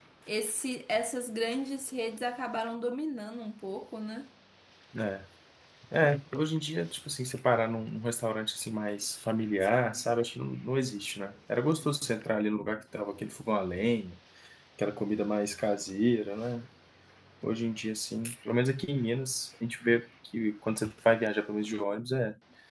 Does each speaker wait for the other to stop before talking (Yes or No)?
Yes